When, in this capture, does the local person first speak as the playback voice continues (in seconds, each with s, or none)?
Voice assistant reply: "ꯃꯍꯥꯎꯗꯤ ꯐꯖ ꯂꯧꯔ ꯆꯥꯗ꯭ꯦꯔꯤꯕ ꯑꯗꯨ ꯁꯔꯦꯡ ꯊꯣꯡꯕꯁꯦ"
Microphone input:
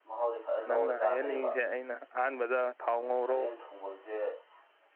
0.7 s